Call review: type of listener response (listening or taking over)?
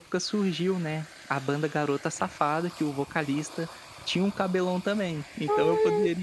taking over